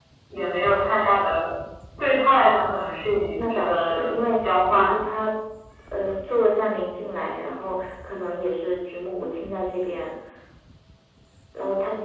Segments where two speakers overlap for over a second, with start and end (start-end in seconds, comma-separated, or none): 3.3-5.0